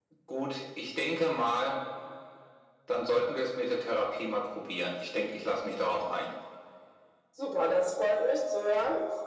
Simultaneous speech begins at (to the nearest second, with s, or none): none